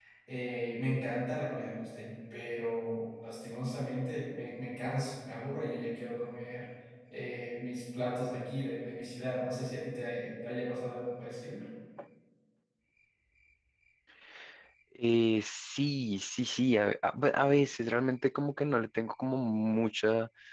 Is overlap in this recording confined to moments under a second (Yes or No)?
Yes